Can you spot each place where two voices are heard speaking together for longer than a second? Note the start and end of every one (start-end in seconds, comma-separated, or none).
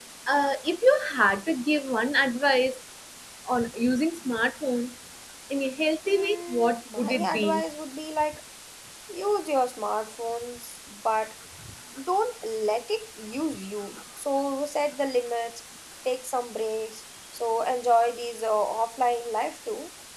6.1-7.6